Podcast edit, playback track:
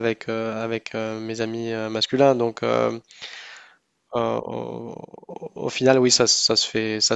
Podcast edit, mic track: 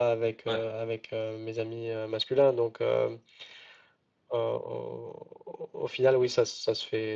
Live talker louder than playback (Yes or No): No